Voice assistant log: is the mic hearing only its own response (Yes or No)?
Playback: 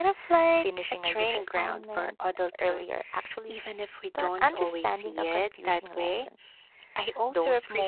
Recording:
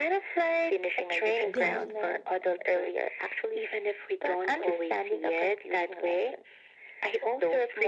No